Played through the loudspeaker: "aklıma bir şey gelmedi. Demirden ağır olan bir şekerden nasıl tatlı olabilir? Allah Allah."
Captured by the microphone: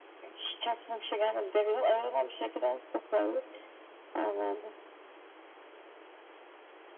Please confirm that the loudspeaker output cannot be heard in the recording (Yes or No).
No